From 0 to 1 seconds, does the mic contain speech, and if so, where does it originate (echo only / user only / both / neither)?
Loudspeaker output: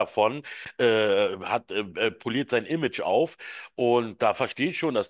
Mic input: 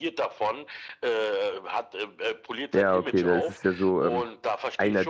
echo only